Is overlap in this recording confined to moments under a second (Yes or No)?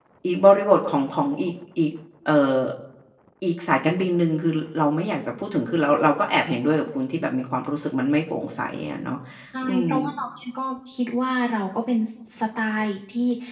Yes